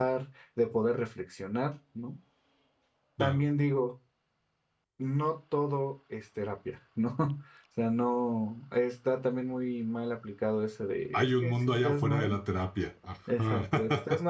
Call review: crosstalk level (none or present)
present